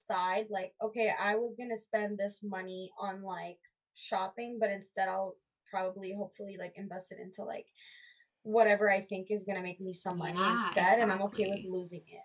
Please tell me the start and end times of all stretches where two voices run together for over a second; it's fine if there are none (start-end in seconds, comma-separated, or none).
10.1-11.7